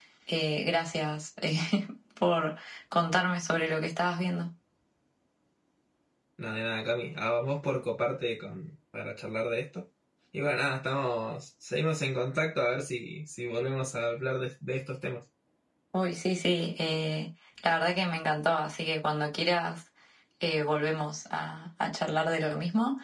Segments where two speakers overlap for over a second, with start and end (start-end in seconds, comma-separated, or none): none